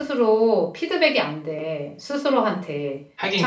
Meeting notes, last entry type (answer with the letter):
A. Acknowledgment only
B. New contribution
A